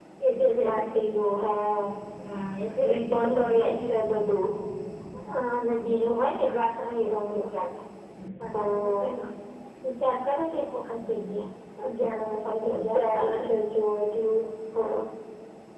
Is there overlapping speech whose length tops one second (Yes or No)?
Yes